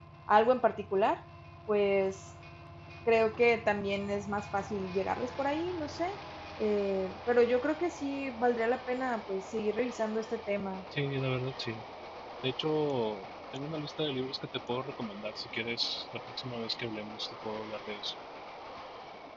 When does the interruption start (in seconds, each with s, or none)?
none